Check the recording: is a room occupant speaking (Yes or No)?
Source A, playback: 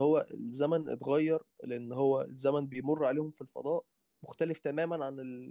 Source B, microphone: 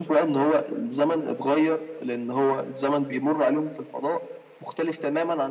No